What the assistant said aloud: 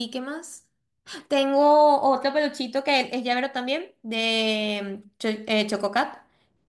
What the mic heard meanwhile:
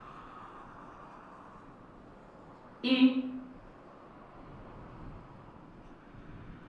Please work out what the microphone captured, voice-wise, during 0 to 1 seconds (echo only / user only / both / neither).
neither